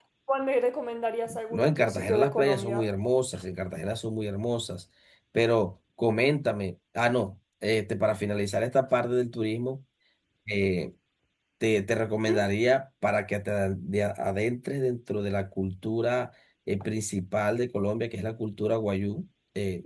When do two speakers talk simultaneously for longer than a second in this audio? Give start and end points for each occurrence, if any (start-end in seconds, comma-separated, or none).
1.5-2.9